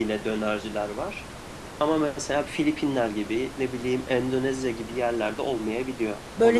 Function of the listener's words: taking over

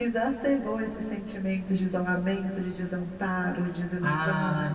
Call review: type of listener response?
taking over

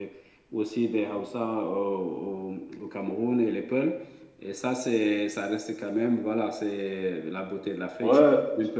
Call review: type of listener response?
taking over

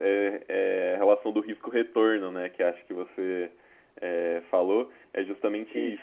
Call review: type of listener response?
listening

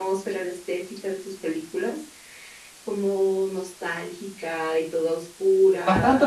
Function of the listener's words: taking over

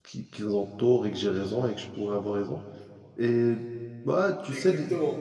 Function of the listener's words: taking over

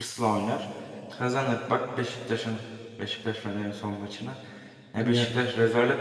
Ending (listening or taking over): listening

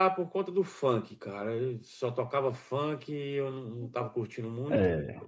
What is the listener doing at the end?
listening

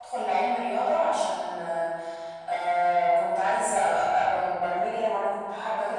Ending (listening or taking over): taking over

